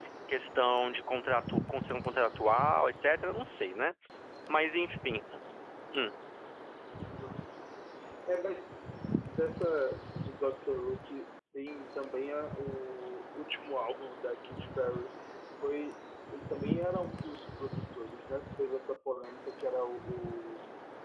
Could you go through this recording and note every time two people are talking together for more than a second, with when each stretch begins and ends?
none

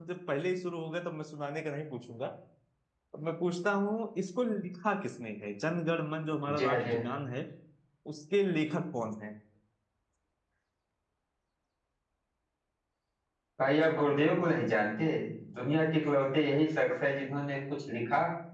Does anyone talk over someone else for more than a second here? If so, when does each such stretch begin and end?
none

